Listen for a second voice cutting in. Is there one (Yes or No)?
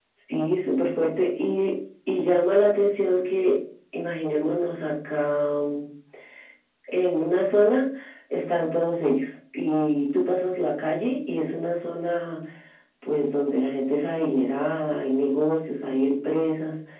No